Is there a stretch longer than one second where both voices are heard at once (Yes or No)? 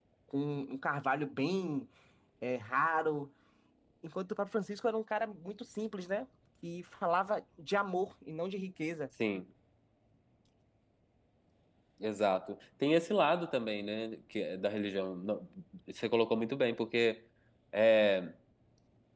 No